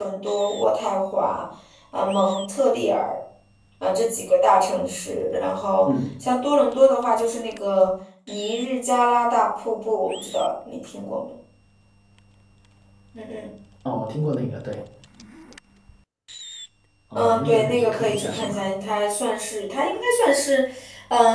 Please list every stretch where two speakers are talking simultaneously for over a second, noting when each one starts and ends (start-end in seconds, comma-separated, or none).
17.1-18.6